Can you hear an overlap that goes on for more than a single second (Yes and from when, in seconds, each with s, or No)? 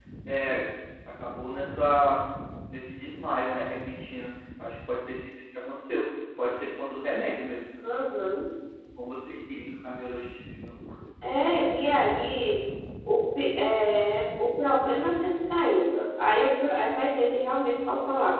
No